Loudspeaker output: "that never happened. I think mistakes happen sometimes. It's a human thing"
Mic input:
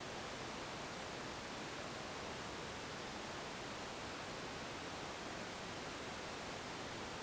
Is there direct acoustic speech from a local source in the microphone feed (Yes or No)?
No